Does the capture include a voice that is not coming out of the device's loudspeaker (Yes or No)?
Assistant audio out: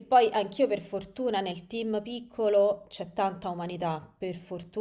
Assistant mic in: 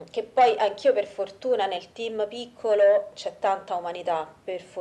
No